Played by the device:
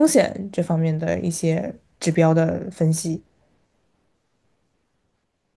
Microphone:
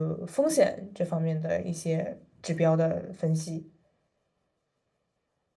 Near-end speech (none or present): none